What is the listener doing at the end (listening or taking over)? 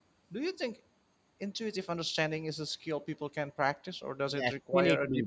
taking over